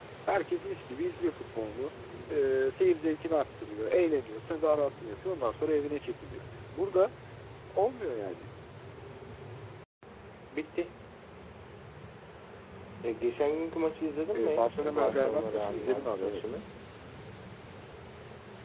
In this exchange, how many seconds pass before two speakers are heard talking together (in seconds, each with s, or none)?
14.3 s